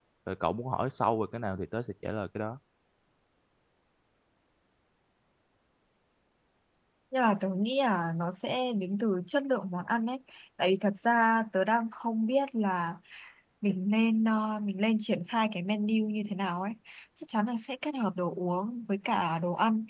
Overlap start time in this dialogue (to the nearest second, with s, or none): none